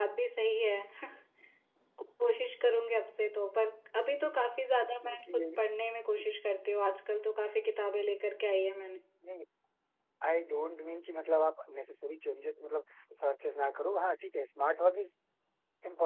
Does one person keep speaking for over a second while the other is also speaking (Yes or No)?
No